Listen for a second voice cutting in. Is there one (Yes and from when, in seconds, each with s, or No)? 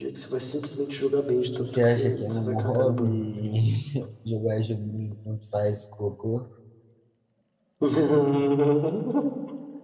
Yes, from 1.6 s